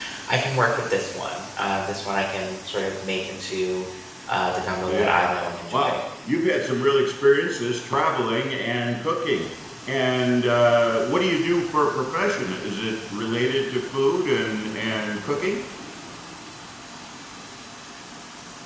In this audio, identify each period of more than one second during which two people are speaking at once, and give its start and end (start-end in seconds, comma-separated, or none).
none